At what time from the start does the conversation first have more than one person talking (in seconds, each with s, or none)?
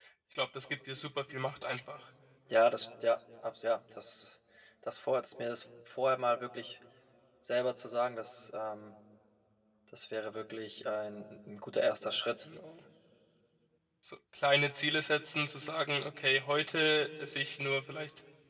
none